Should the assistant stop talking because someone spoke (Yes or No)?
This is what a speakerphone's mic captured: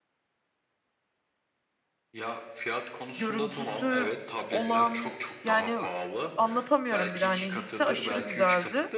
Yes